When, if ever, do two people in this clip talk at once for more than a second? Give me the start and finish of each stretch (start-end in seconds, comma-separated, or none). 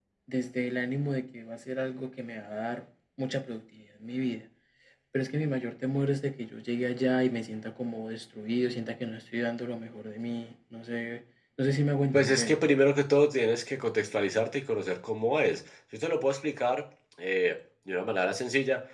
none